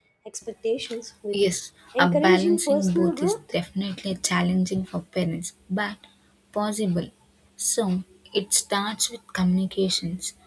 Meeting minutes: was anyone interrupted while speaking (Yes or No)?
Yes